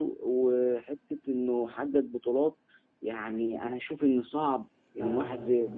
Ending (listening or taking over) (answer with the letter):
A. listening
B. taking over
A